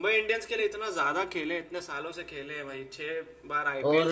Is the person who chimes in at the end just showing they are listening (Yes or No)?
No